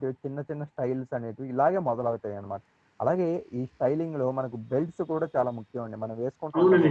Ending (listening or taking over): taking over